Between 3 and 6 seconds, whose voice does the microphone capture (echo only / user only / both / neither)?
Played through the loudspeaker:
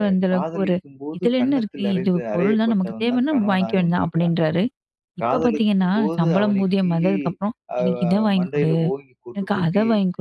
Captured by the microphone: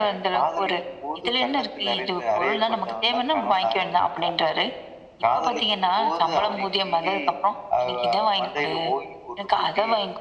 echo only